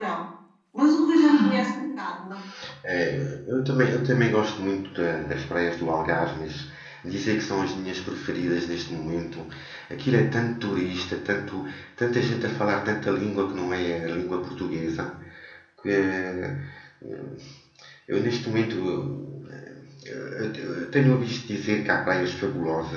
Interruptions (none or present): none